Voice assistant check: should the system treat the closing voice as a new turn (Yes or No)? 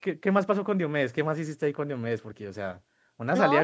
Yes